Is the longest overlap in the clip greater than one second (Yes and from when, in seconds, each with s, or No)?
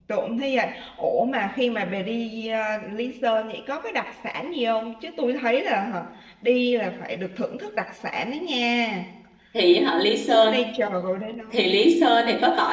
No